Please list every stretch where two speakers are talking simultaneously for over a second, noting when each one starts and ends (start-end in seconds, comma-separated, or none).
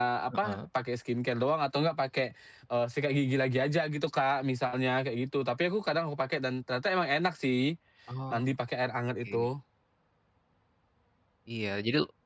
none